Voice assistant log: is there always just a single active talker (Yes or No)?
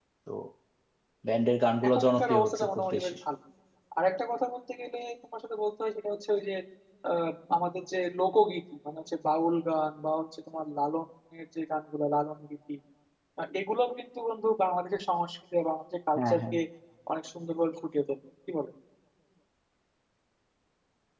No